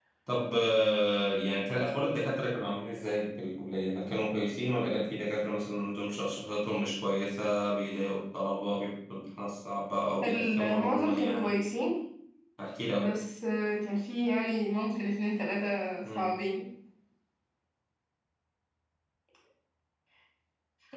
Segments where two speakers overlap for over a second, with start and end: 10.2-11.5

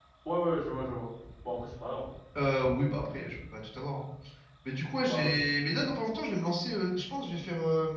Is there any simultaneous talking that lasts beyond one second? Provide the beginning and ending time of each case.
none

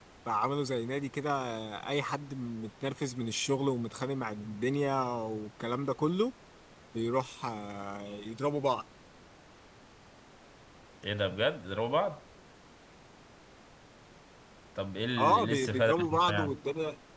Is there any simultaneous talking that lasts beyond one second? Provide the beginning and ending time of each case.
15.2-16.6

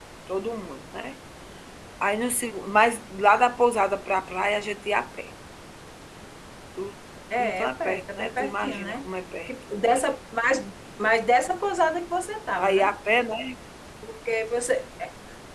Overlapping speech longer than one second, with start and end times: 7.4-9.0

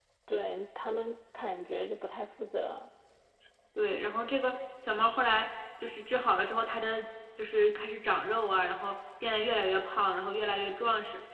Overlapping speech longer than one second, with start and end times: none

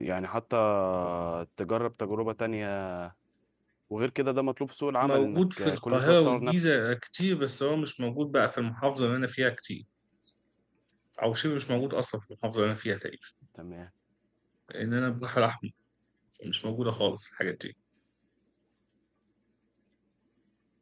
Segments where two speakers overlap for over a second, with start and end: 5.0-6.6

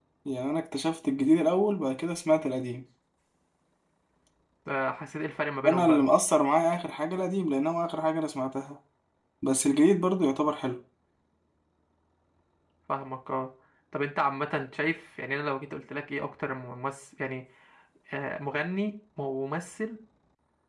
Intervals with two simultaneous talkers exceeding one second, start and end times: none

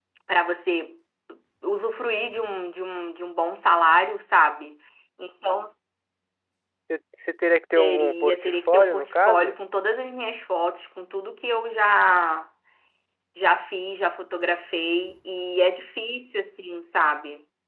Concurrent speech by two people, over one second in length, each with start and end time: 7.8-9.6

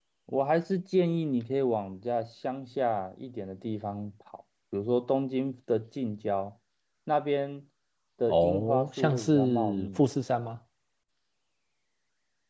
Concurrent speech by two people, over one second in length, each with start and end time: 8.3-10.0

